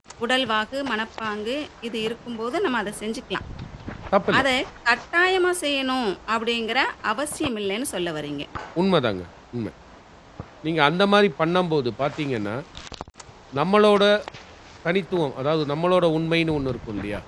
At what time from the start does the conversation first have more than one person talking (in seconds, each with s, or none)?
none